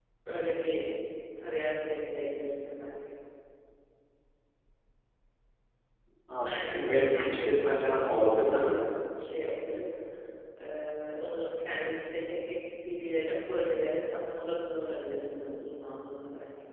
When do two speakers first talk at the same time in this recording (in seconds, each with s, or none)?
6.4 s